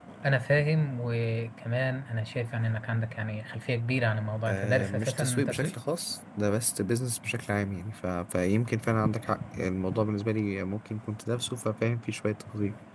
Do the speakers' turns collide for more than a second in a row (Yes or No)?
Yes